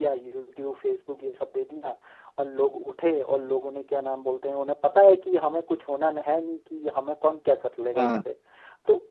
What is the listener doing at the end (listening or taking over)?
listening